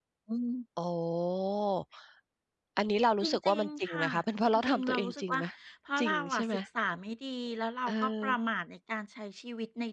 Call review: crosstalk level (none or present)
present